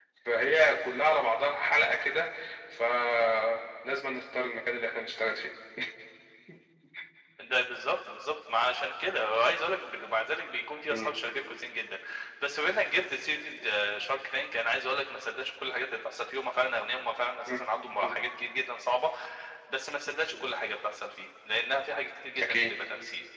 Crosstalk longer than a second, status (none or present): none